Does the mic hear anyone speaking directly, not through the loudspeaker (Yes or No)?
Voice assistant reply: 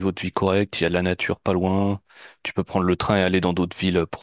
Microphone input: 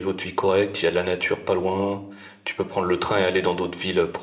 No